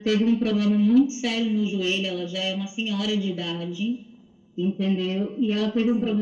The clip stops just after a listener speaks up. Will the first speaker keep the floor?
Yes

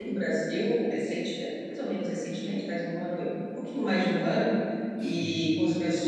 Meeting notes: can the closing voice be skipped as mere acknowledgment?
Yes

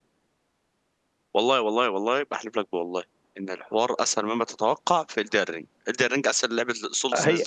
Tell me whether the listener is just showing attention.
No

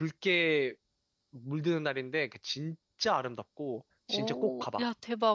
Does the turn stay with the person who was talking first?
No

